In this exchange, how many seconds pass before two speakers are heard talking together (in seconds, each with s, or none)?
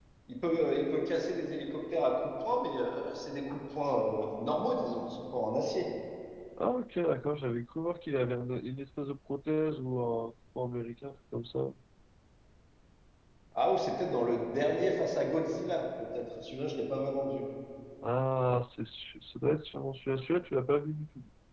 none